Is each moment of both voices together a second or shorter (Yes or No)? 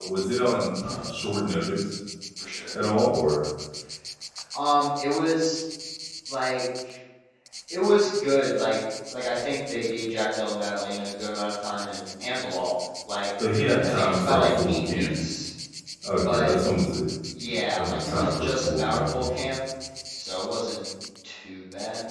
No